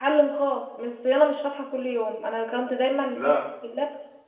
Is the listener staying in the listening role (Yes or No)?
Yes